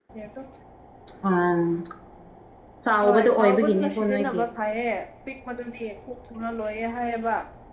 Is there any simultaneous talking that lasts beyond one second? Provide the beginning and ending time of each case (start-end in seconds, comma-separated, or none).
3.0-4.4